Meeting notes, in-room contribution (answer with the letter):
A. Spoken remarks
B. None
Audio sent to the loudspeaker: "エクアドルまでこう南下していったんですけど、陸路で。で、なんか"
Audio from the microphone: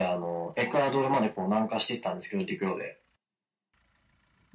B